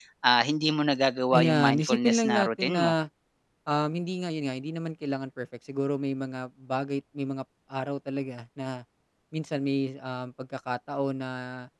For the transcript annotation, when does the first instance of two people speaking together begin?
1.3 s

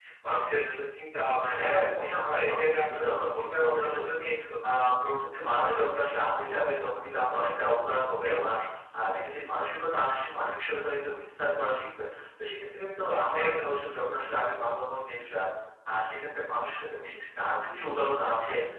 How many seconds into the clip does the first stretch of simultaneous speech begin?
1.6 s

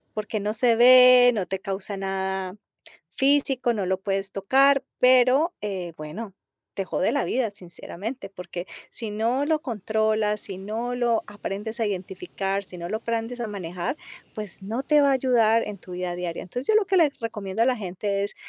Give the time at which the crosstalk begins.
none

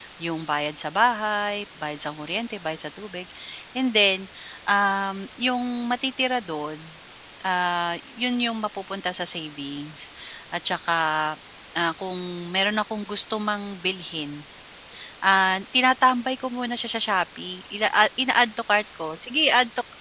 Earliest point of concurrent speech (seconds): none

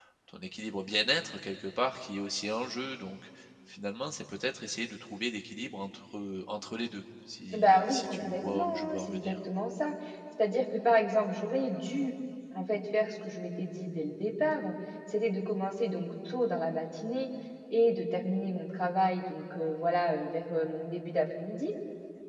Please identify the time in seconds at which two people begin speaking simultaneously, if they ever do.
7.5 s

